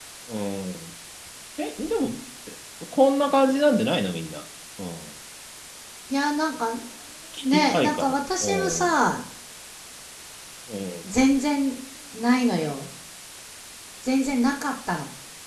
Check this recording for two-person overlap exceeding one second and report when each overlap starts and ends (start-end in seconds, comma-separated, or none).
7.4-9.0